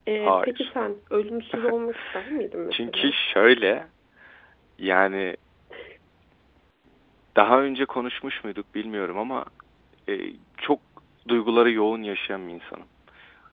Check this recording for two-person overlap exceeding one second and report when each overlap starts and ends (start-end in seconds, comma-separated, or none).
none